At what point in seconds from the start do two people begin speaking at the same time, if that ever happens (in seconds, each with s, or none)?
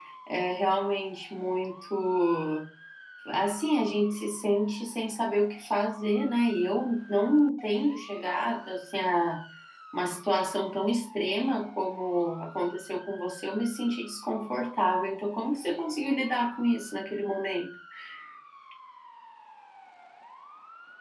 none